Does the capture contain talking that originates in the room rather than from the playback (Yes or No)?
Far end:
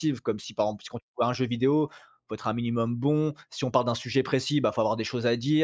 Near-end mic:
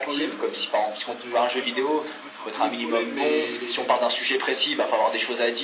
Yes